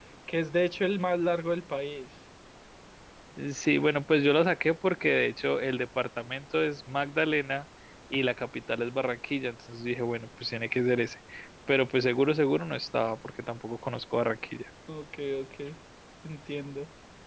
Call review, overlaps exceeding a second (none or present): none